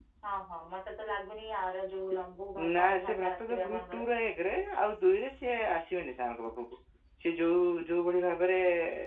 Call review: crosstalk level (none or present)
present